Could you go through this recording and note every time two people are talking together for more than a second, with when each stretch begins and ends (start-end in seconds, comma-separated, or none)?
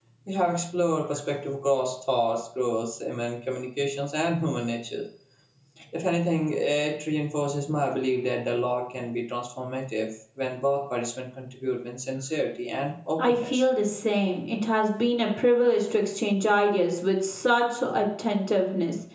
none